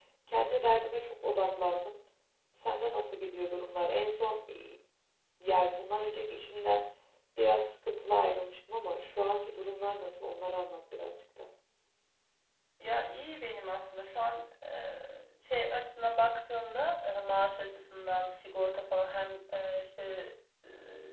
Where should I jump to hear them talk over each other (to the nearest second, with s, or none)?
none